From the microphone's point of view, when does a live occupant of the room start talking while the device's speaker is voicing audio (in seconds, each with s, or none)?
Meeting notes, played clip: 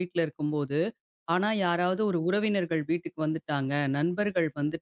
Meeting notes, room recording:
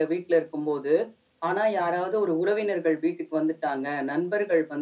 none